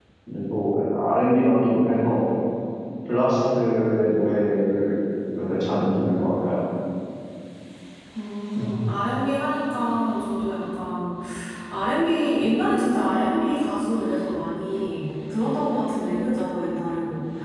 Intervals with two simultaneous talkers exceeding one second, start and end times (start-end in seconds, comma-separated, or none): none